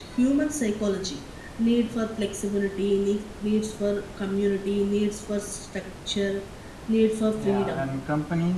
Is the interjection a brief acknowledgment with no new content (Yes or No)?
No